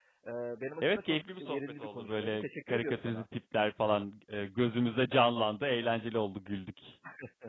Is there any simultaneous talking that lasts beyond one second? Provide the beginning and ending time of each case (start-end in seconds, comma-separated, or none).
0.8-3.2